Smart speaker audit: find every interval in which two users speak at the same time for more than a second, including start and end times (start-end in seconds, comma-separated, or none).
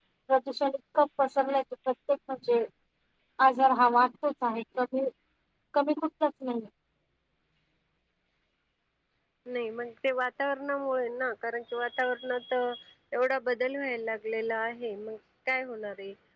none